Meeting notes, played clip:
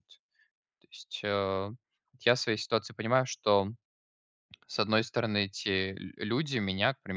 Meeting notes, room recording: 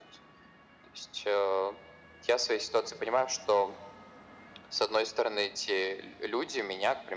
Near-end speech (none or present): none